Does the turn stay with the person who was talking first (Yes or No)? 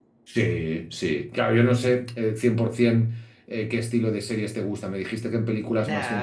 No